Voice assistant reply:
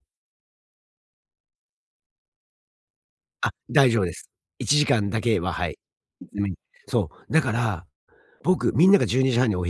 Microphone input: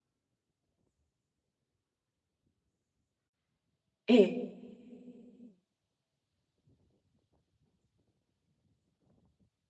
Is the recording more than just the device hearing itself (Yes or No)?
Yes